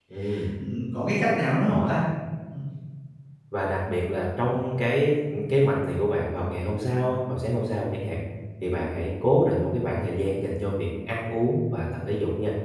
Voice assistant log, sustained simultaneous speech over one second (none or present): none